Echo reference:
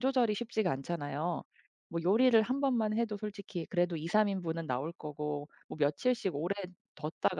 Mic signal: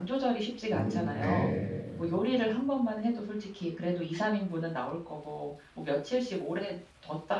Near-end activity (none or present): present